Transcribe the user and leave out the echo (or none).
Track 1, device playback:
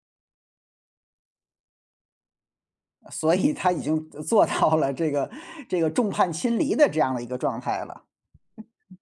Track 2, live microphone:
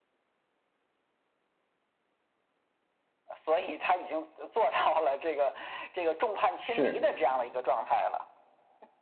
是。